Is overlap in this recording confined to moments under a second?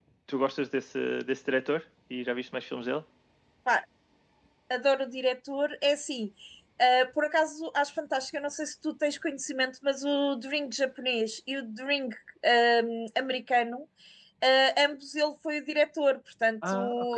Yes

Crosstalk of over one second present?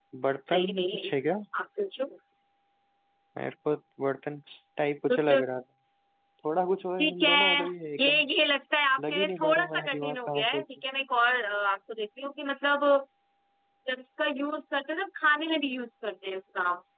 Yes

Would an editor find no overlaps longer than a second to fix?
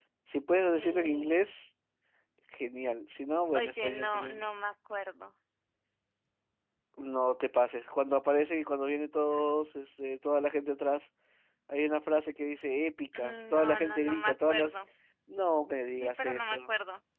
No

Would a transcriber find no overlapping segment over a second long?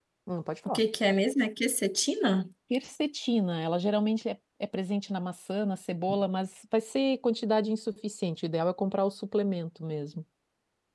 Yes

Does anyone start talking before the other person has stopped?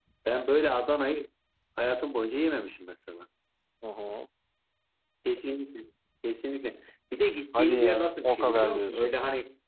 Yes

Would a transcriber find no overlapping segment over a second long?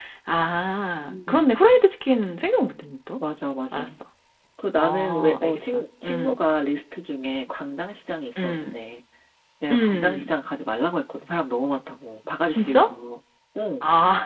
No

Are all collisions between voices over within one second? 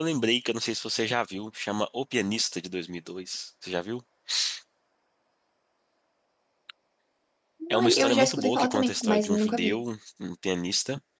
No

